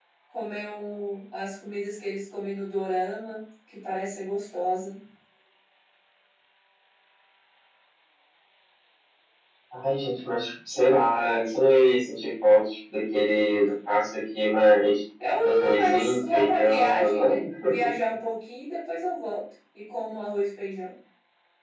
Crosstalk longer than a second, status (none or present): present